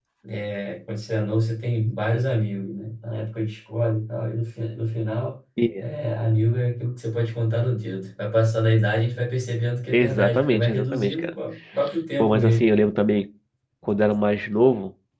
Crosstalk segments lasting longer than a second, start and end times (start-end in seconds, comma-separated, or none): 9.9-11.3